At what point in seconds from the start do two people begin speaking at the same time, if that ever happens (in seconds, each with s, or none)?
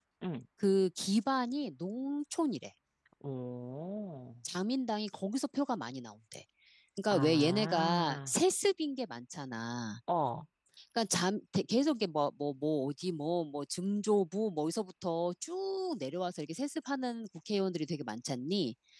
7.1 s